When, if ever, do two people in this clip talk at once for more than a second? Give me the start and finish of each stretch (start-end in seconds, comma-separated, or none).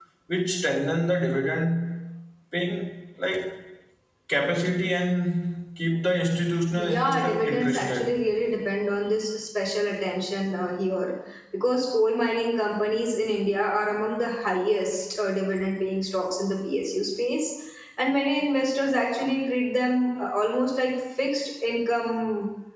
6.8-8.2